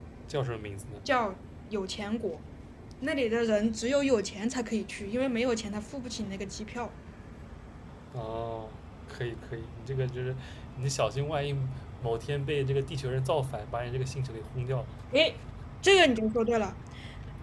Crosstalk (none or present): none